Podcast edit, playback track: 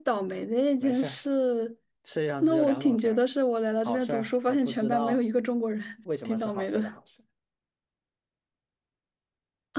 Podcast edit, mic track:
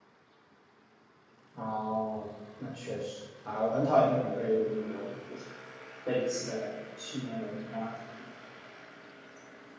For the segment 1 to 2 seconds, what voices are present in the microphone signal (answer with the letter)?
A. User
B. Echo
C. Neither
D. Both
A